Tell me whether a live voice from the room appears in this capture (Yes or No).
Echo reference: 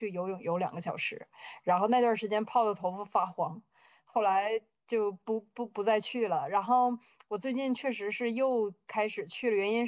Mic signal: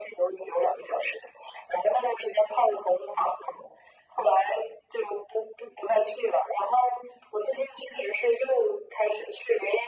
No